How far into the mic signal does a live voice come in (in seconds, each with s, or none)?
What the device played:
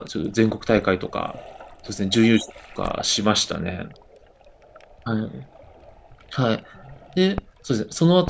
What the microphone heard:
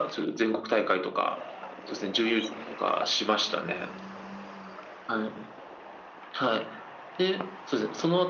none